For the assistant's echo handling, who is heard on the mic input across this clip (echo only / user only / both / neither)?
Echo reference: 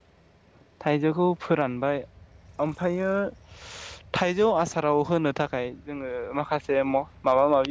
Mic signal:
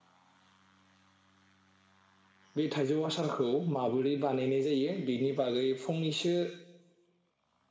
user only